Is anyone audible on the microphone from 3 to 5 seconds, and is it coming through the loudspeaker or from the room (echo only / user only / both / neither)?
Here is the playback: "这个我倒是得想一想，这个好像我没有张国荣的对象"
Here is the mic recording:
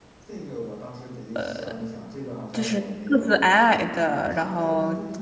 both